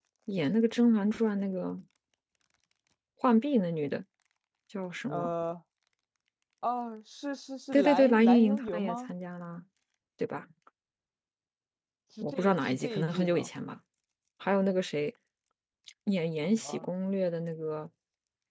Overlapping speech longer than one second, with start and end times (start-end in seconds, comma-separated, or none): 7.7-9.1, 12.2-13.5